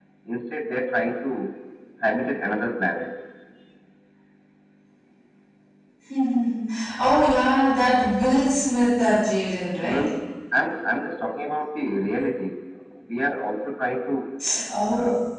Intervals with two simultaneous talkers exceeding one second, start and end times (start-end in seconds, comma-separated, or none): none